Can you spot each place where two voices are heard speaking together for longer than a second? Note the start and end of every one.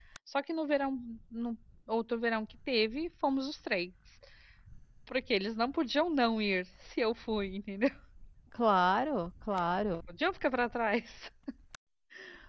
none

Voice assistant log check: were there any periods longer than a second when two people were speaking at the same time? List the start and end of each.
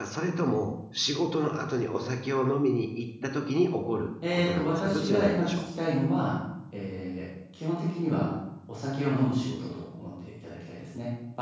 4.3-5.6

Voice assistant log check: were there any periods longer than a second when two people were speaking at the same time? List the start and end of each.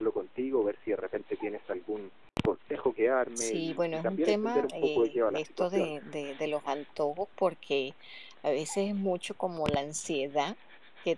3.4-5.9

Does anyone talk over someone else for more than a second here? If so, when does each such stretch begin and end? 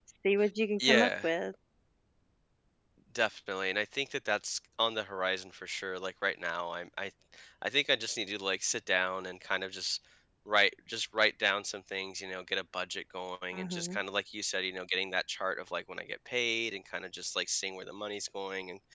none

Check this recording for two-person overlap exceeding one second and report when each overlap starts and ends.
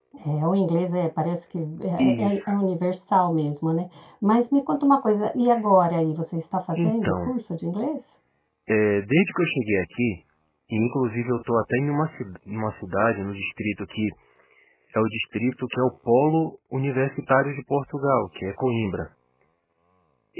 none

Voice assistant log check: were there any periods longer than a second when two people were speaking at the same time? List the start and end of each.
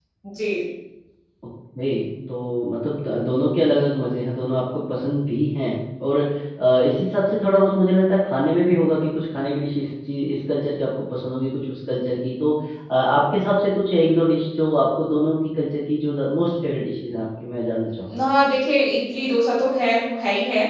none

